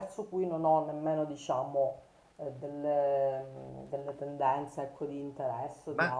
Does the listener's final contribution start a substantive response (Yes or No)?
Yes